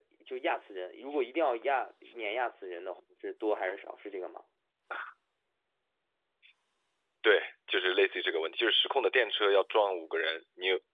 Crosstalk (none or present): none